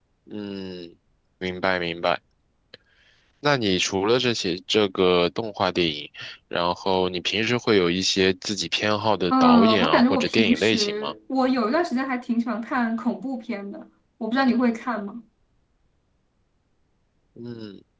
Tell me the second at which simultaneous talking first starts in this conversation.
9 s

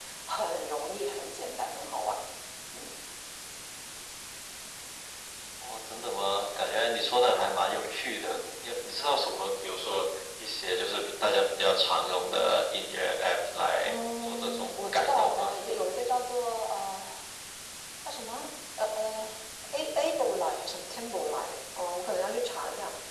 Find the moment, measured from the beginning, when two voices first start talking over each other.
14 s

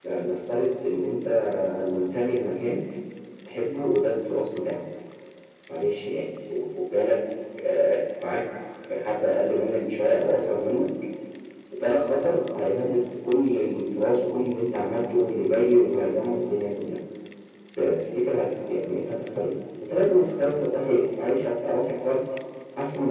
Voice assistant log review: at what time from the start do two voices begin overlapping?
none

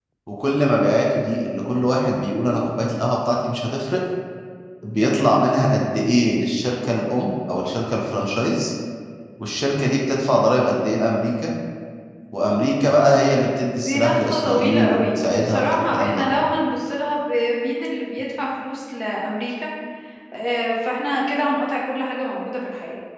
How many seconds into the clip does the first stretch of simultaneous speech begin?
14 s

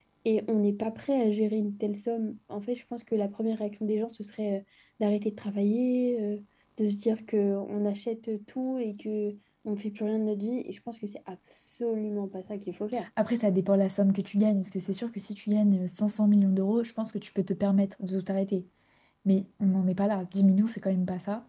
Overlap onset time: none

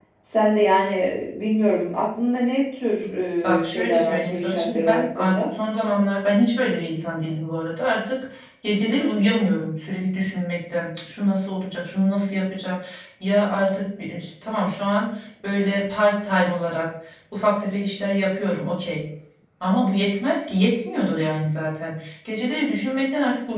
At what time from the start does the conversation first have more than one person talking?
4 s

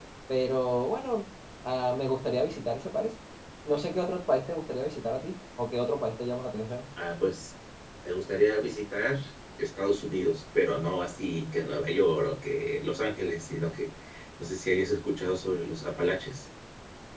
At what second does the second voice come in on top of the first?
none

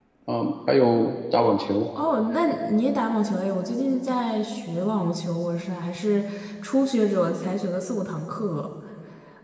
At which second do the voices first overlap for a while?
none

